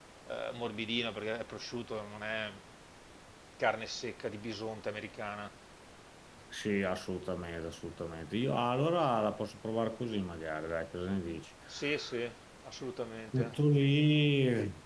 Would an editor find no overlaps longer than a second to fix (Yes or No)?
Yes